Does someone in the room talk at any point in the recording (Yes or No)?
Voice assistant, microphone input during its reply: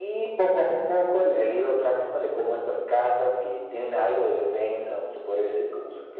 No